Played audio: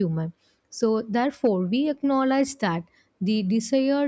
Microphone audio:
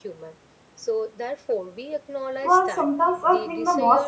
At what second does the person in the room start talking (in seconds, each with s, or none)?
2.4 s